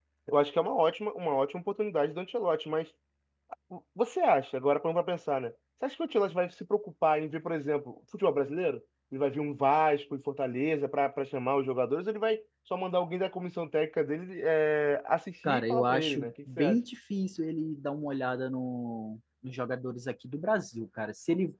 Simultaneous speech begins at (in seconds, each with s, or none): 15.4 s